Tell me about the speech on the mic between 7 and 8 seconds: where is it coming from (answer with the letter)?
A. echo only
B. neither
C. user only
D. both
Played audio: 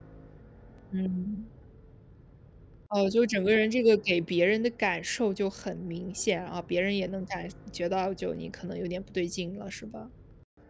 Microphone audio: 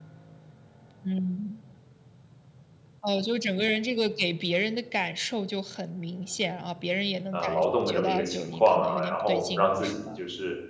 D